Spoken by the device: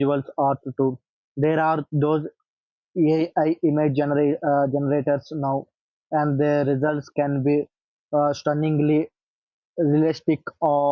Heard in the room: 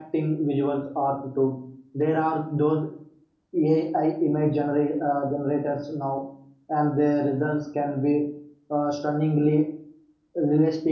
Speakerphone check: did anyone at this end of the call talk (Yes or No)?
No